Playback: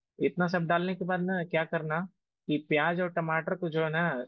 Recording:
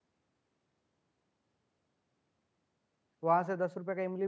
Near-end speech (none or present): present